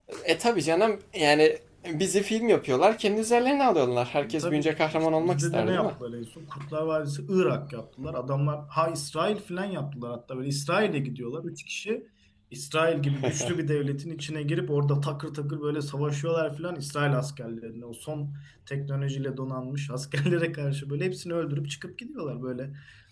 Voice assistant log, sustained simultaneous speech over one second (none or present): present